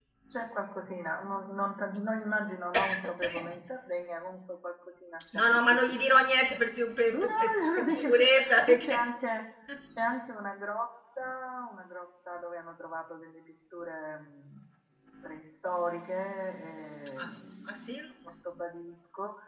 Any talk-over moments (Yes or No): Yes